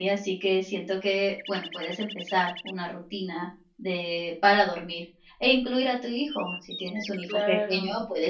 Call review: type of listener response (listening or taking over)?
listening